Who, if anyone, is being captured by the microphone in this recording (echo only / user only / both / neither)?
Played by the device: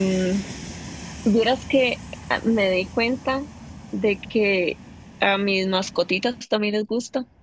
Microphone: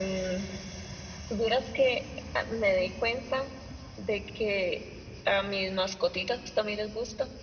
echo only